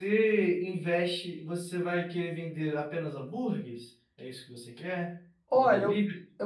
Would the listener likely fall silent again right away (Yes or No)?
No